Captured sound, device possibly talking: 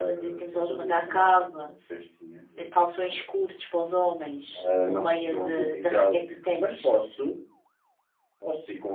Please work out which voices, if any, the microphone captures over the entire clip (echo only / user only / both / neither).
echo only